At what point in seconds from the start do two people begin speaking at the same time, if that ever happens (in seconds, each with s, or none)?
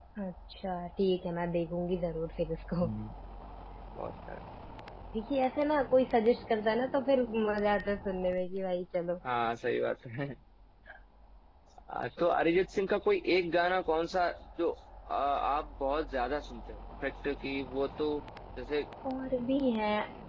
none